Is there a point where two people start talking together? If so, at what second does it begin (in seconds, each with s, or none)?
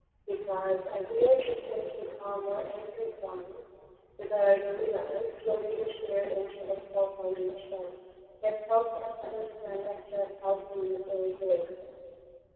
none